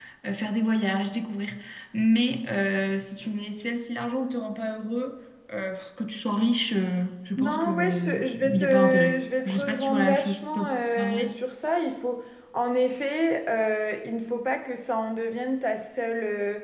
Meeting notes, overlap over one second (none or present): present